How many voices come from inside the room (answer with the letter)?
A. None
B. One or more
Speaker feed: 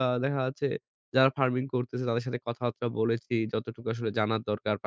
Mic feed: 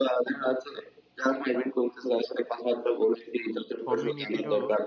B